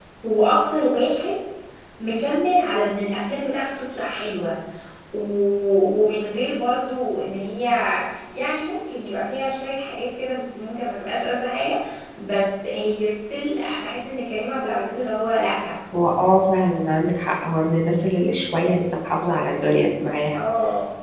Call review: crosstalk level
none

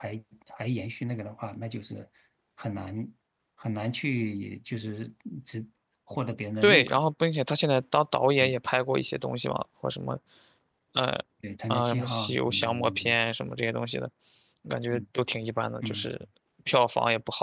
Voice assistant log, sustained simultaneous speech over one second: present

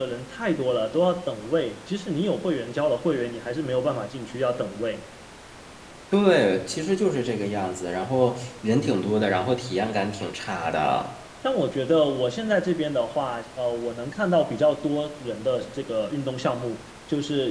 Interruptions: none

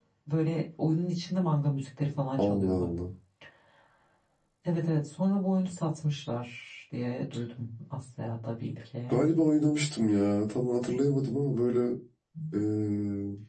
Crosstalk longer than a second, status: none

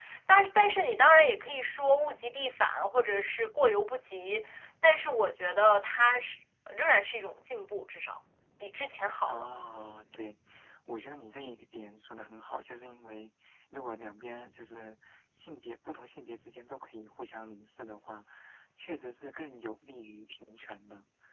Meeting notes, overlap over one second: none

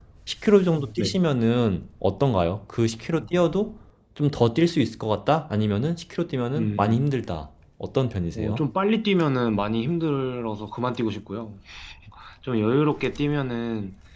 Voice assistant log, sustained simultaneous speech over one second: none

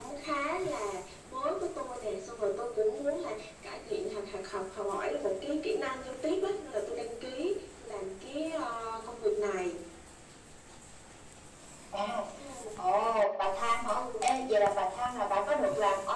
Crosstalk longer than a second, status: none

